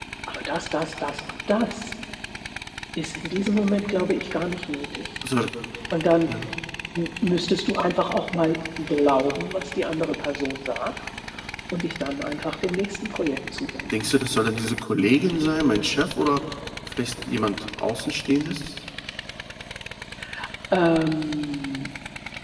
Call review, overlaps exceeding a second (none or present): none